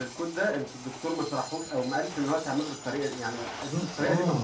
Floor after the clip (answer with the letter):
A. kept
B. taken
B